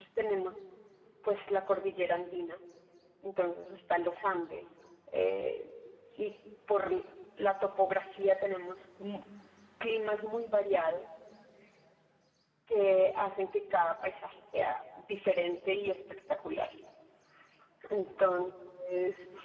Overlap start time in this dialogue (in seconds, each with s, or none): none